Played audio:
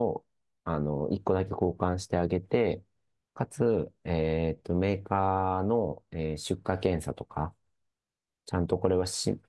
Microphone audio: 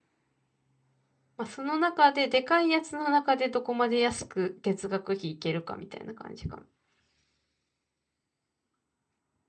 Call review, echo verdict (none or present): none